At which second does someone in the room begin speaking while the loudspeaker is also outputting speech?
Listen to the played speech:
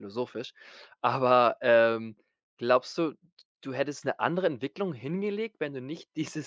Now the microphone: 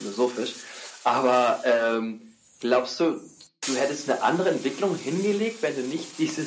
none

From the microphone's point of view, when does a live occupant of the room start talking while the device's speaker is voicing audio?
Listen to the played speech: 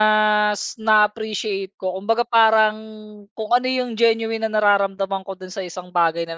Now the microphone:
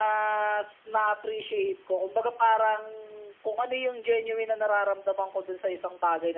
none

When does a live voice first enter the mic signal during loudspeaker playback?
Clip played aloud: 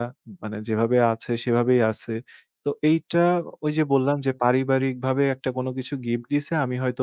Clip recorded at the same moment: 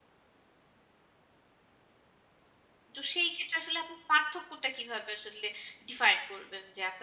3.0 s

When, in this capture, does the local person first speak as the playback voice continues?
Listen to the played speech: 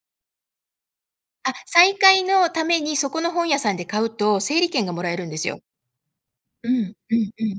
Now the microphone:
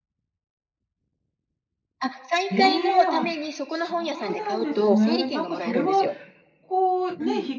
2.5 s

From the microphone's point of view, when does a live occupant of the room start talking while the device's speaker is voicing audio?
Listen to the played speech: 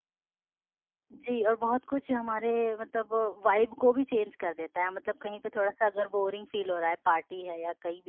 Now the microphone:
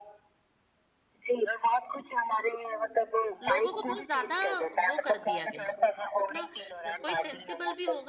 2.6 s

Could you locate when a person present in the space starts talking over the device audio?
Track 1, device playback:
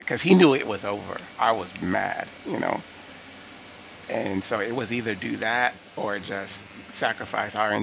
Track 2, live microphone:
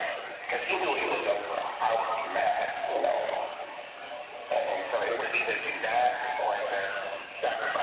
none

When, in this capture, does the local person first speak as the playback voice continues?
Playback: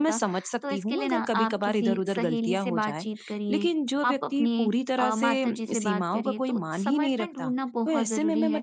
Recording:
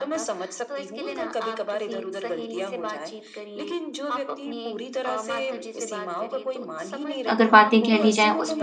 7.3 s

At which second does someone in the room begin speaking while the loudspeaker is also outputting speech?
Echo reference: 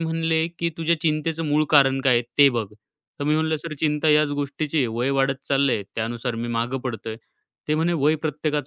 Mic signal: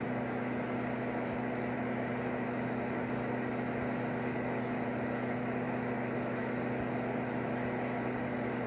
none

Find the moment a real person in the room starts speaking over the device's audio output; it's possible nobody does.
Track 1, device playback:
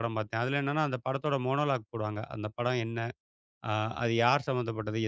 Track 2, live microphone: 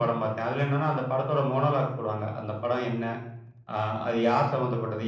none

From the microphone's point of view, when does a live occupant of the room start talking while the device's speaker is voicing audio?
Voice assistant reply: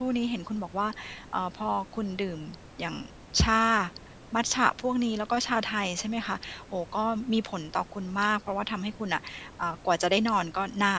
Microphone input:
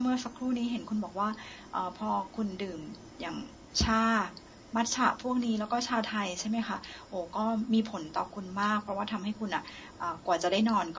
none

